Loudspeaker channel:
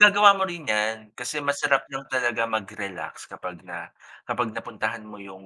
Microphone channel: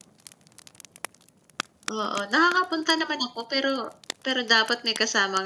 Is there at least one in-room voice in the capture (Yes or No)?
Yes